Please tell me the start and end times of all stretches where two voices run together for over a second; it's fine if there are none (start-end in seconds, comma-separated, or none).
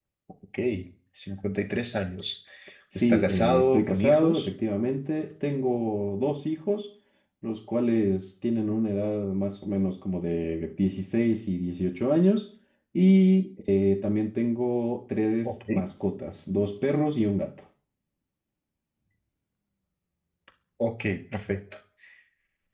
3.0-4.5